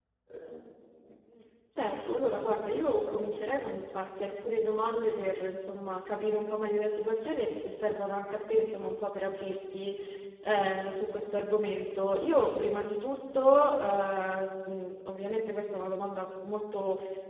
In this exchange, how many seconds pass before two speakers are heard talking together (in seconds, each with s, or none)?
1.8 s